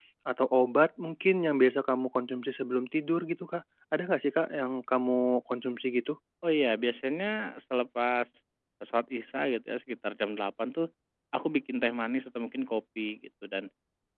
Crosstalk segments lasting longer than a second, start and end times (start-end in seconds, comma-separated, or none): none